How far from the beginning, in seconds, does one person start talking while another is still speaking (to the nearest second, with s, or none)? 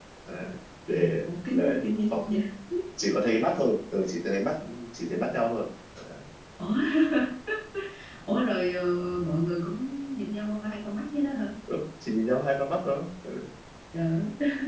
1 s